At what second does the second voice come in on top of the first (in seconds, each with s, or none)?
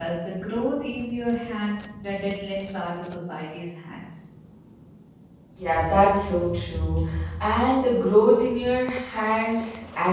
none